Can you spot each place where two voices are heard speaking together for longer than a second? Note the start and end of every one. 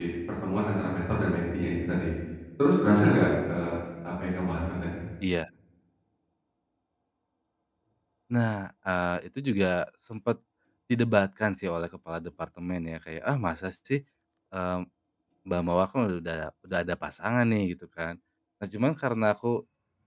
none

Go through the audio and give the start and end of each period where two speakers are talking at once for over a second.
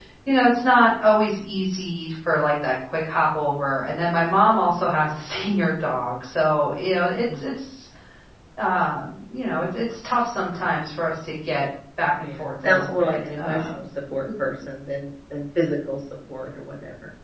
12.2-13.8

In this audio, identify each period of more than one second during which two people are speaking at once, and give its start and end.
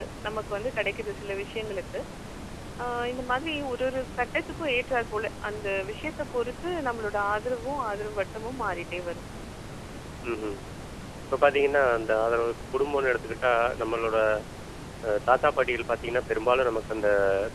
none

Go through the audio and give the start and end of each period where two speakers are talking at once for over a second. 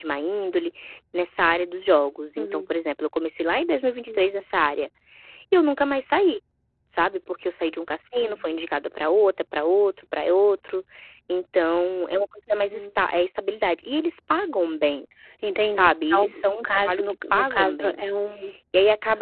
15.7-18.0

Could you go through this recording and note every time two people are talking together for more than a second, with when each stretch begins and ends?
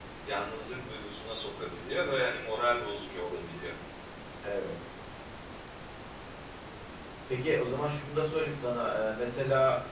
none

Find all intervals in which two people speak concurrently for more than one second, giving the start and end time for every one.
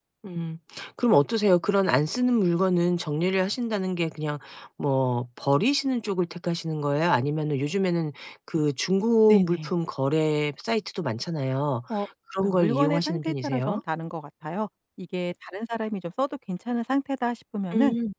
12.4-13.8

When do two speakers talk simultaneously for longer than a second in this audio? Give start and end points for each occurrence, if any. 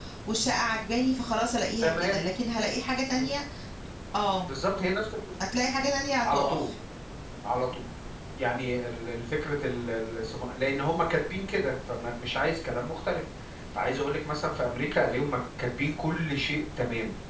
none

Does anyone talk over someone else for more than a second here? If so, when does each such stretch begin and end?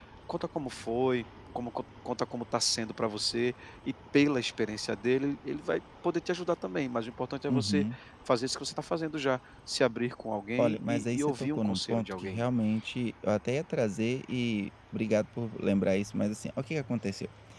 10.6-12.4

